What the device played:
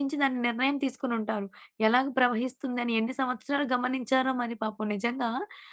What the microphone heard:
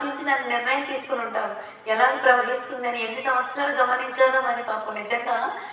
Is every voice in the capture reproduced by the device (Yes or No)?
Yes